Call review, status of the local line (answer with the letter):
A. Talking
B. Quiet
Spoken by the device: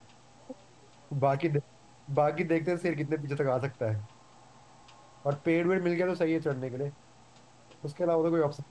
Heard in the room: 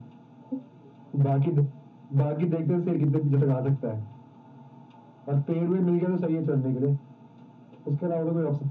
B